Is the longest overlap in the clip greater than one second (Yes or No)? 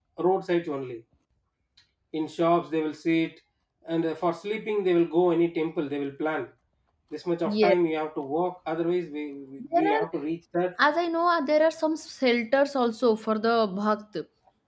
No